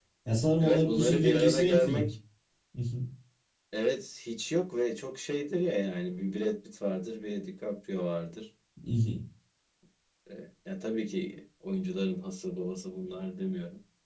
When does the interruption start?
0.6 s

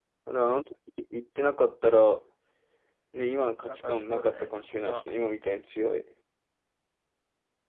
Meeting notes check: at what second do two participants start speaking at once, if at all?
3.7 s

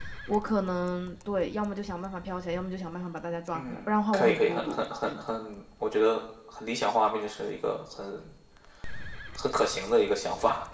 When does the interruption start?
3.5 s

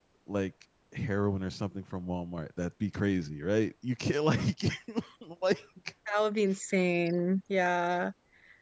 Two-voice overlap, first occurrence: none

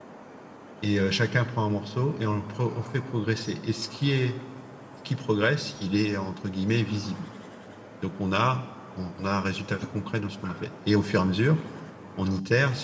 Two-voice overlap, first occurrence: none

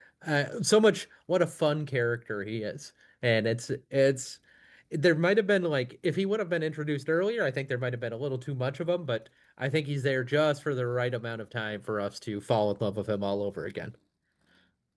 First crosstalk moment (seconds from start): none

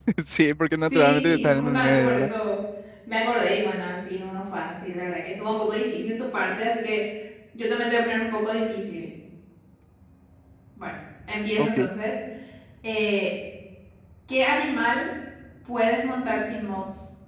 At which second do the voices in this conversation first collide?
0.9 s

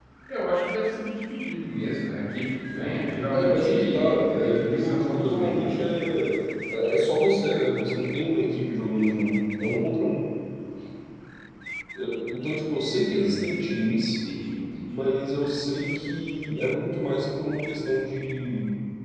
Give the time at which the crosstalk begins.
3.3 s

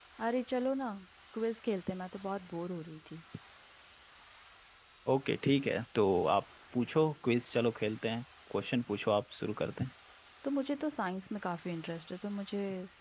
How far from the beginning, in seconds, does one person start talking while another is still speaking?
none

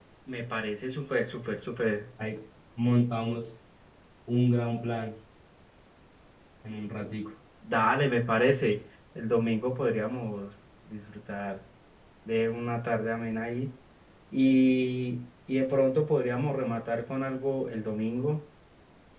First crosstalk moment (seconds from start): none

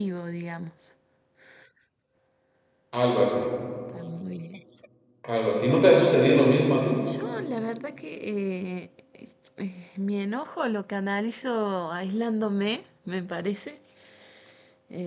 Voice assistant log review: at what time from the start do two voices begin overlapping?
none

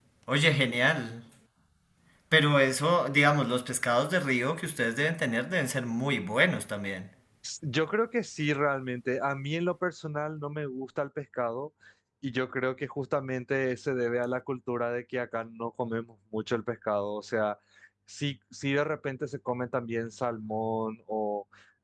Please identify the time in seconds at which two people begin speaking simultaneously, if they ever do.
none

